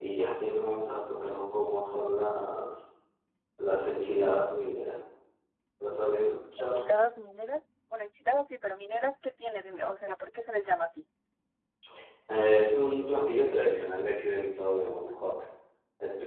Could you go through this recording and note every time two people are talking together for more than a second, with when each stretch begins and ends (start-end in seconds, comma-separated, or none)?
none